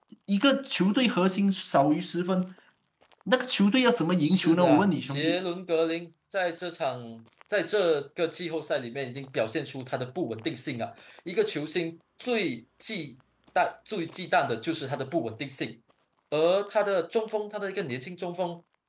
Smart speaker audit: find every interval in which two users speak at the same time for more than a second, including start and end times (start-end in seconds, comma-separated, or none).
4.2-5.4